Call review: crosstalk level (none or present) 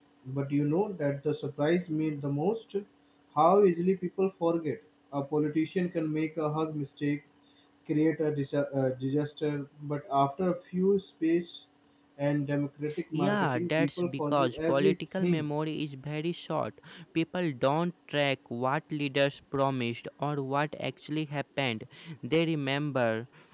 present